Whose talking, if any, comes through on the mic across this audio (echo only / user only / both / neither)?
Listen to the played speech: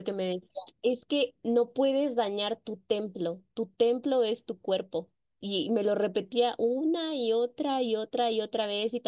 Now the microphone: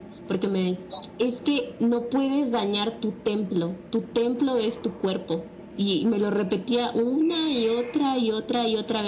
echo only